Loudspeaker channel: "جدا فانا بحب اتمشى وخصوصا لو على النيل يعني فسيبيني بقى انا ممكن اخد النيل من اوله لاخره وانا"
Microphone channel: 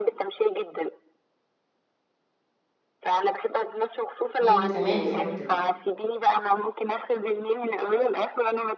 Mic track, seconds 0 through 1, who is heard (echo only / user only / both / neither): echo only